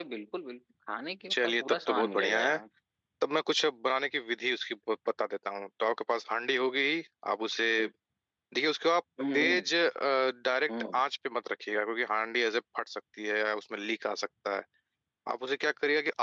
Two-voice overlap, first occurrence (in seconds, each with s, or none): 1.3 s